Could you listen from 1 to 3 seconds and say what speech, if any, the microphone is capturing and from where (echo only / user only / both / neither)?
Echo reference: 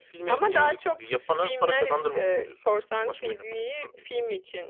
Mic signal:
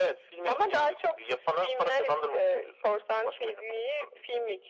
echo only